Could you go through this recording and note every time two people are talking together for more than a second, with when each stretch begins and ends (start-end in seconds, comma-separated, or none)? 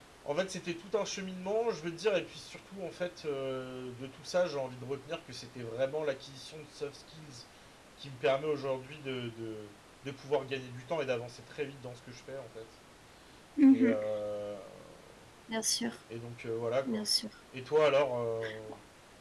none